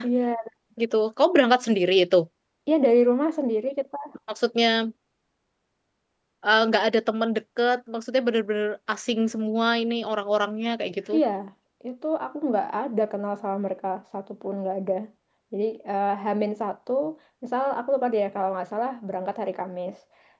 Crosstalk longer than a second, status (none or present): none